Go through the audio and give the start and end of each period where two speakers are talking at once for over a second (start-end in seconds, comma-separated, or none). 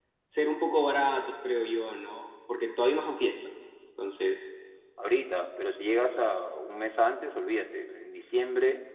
none